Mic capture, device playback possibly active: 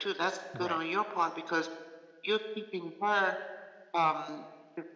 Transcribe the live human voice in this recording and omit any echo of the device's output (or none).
Right.